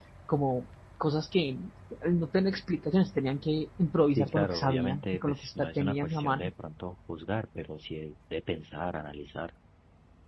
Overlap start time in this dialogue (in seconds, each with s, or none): 4.2 s